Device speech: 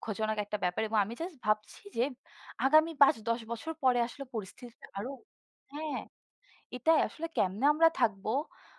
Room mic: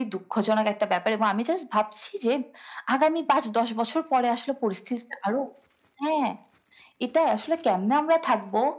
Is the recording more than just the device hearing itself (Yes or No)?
No